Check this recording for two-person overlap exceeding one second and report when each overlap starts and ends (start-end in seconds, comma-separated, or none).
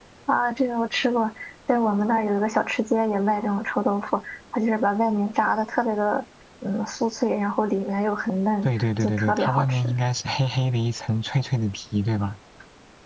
8.6-9.9